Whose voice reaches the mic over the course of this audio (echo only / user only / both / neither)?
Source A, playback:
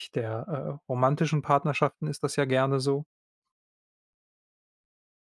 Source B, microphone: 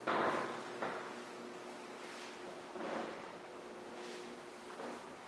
neither